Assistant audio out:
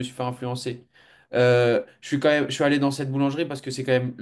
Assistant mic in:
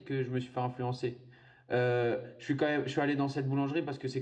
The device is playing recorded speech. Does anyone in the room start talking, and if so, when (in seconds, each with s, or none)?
none